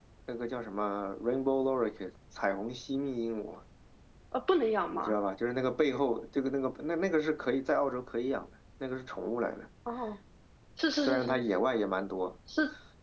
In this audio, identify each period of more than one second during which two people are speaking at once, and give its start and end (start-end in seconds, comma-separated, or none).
none